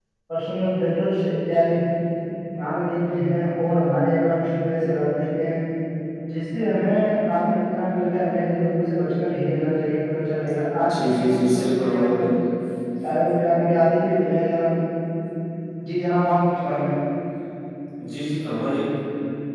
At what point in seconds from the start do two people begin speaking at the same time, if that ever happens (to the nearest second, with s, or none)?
11 s